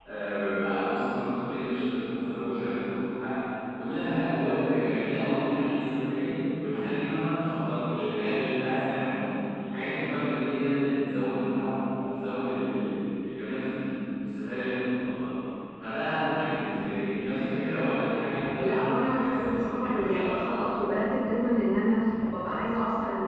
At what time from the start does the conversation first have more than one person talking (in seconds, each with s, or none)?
18.6 s